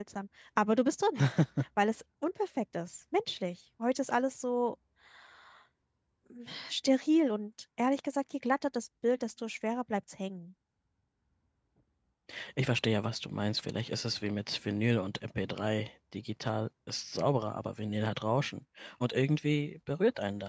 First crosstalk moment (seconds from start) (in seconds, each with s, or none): none